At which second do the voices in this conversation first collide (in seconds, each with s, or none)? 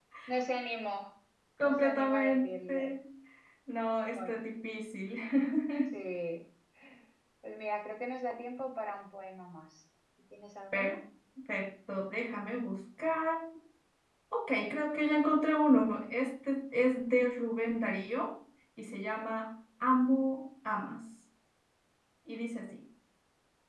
1.6 s